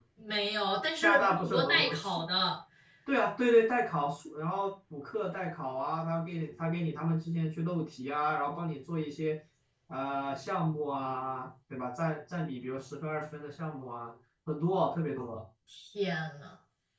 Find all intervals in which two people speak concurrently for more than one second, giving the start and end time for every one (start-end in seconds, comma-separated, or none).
1.0-2.2